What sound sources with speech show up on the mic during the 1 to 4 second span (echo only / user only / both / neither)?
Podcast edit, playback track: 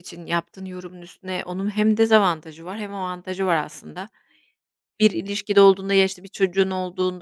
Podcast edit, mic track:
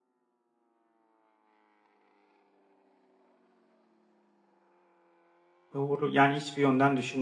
neither